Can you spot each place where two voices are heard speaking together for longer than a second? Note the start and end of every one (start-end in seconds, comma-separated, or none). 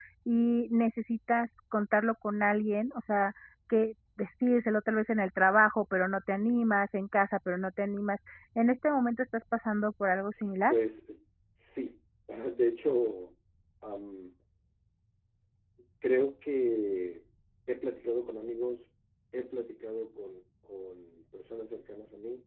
none